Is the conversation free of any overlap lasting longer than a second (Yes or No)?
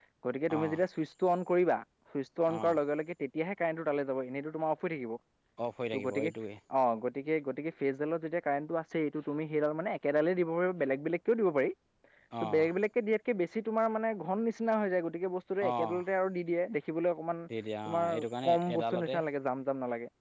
No